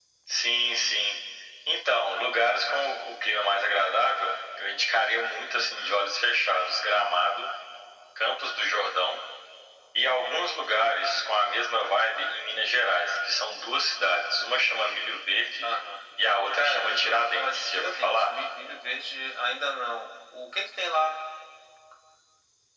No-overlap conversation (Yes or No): No